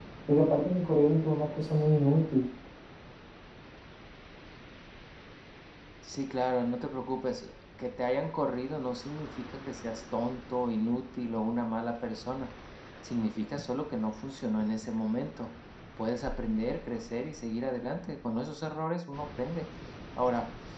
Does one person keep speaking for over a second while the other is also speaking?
No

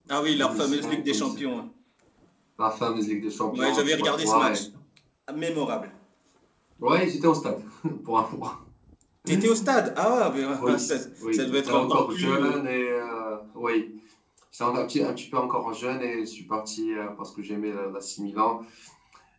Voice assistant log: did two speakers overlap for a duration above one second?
Yes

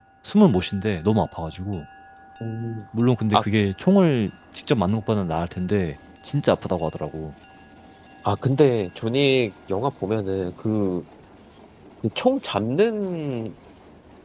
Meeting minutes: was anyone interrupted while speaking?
No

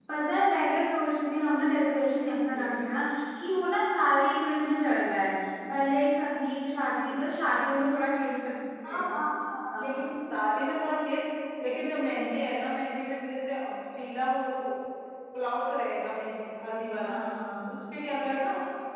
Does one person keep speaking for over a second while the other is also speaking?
No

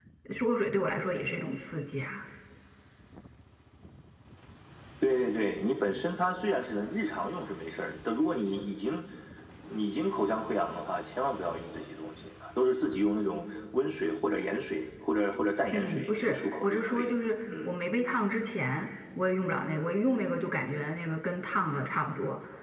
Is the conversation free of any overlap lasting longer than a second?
No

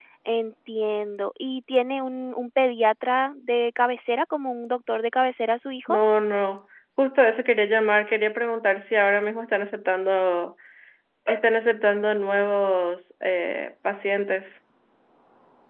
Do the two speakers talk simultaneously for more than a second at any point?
No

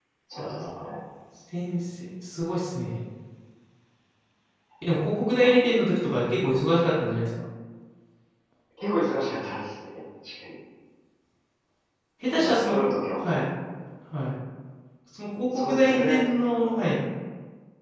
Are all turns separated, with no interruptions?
No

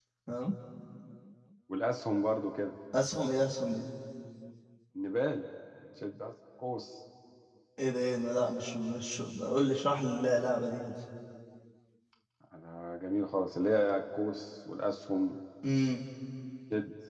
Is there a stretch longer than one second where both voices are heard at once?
No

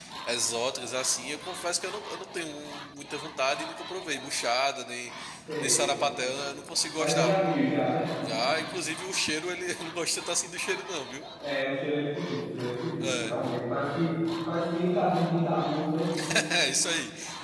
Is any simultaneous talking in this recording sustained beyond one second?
No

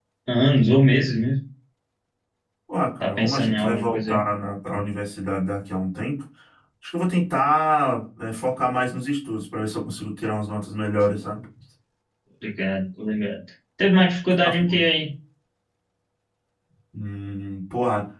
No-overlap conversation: No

